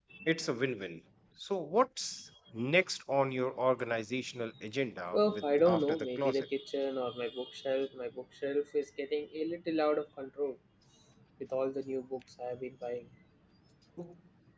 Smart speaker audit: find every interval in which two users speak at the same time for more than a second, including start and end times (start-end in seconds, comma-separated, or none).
5.1-6.5